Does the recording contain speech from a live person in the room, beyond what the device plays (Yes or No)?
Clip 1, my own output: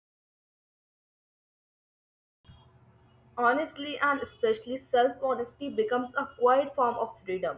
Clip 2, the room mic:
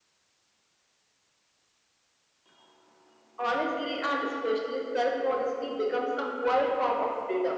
No